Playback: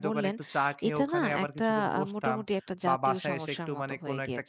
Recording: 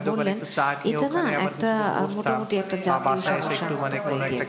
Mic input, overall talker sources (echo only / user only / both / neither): both